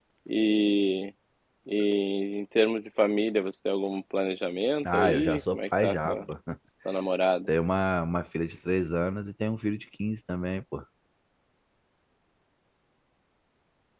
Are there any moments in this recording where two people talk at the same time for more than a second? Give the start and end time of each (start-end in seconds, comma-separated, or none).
4.8-6.2